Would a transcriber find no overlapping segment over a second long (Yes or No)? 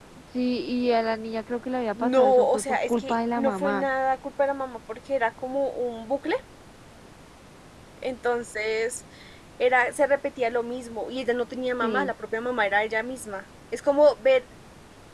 No